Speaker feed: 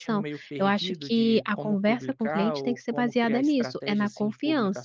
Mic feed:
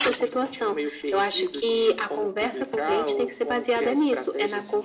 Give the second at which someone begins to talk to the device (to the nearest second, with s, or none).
none